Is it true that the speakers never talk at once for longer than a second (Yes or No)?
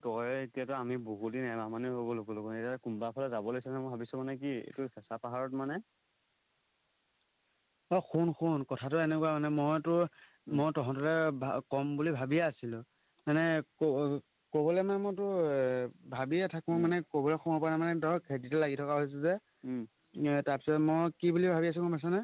Yes